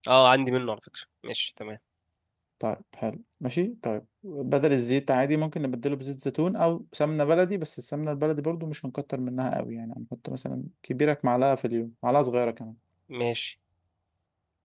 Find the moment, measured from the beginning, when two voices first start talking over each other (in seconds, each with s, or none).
none